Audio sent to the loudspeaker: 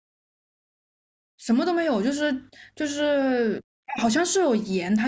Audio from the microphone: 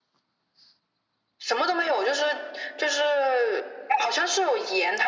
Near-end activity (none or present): none